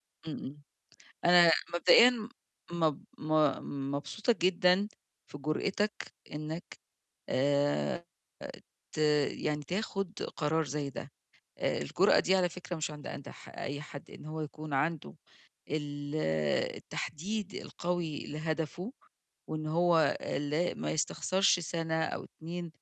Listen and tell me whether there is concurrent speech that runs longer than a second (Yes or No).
No